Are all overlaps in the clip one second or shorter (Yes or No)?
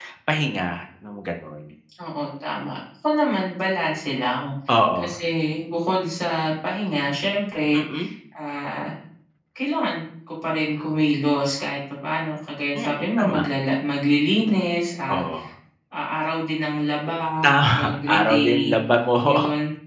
No